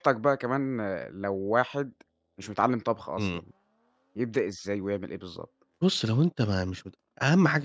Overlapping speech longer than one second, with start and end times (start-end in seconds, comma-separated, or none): none